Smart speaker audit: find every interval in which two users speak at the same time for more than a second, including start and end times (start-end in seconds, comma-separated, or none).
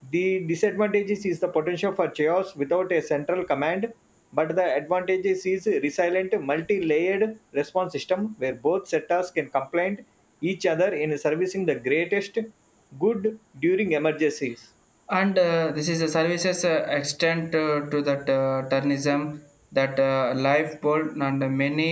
none